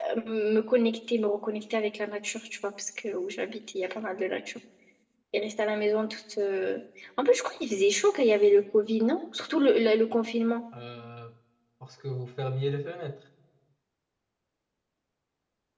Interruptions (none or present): none